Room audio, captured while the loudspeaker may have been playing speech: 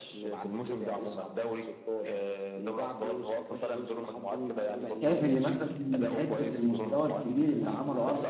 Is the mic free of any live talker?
No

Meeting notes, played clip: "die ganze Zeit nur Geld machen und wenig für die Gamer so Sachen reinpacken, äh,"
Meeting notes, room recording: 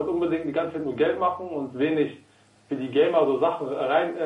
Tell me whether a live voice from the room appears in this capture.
No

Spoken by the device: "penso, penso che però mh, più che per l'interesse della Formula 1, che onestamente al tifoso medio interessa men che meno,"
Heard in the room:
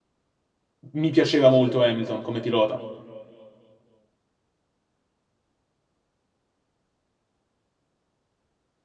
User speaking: Yes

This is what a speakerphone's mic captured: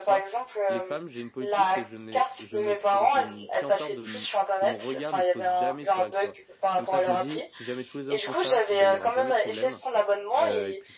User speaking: Yes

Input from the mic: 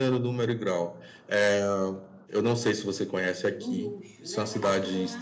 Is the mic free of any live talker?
No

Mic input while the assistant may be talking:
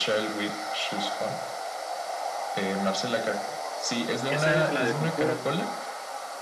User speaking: Yes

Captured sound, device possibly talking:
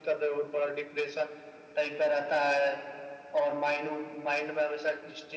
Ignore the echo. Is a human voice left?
No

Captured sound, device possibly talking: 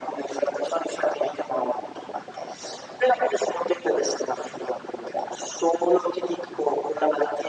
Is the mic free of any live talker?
Yes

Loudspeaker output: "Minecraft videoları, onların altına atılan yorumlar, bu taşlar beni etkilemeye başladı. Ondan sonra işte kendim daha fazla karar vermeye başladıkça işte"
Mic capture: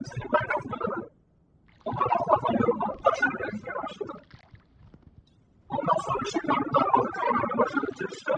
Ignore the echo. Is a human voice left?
No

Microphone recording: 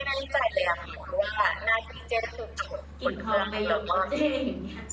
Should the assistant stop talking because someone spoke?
Yes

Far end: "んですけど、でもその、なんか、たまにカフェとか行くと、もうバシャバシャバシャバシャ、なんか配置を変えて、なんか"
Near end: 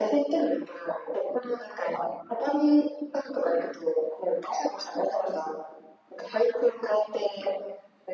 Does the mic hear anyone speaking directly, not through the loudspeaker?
No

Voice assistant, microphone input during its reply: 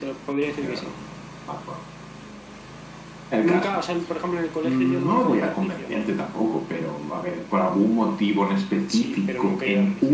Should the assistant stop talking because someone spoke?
No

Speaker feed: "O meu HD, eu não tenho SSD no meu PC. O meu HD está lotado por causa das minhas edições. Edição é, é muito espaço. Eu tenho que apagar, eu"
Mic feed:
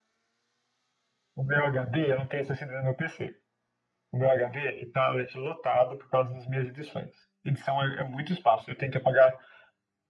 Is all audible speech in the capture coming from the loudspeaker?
Yes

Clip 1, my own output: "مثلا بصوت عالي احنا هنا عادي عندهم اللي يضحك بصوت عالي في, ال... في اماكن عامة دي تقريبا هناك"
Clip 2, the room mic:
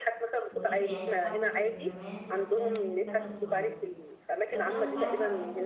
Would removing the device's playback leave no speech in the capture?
No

